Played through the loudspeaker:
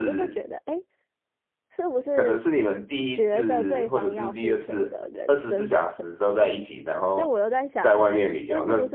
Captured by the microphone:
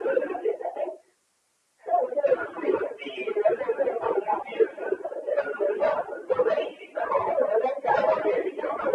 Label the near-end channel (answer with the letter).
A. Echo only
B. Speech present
A